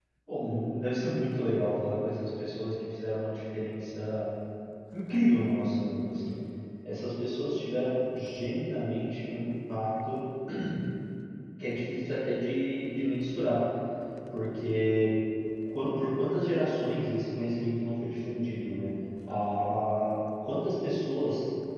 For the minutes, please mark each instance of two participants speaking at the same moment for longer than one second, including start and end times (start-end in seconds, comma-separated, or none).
none